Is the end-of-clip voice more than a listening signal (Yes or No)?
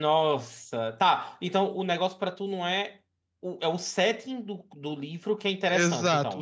Yes